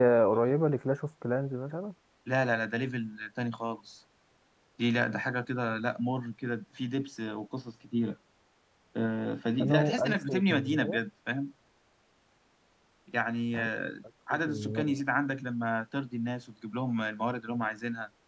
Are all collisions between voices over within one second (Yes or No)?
No